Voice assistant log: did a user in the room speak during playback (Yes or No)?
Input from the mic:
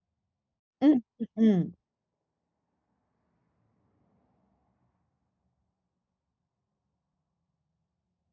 Yes